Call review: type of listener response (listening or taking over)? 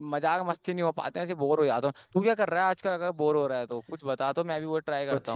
taking over